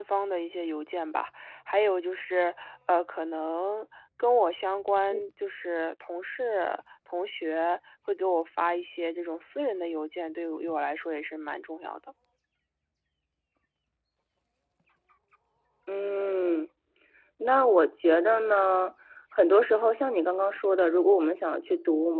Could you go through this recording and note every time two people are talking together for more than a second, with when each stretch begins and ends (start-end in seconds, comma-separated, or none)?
none